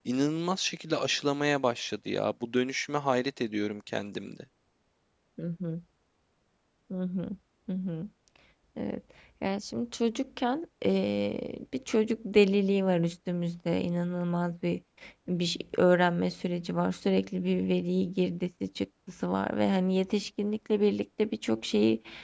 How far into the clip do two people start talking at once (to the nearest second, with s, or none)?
none